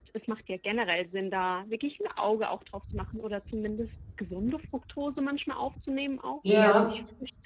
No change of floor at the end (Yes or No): Yes